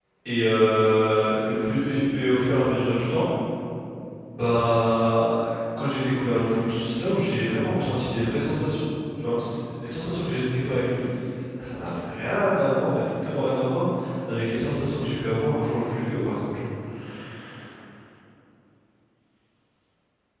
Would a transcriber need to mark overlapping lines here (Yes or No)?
No